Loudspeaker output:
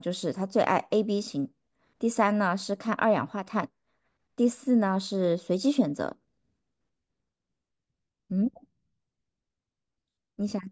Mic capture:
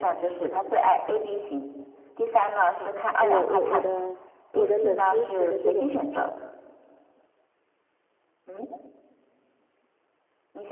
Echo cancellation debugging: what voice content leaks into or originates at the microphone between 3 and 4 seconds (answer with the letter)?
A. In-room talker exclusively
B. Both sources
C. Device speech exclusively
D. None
B